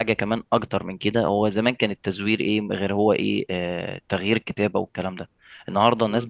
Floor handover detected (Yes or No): No